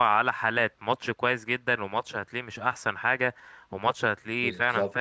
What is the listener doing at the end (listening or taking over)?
listening